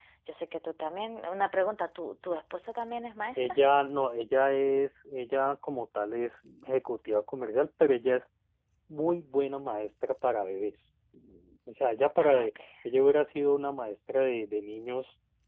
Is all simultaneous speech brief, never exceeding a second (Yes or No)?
Yes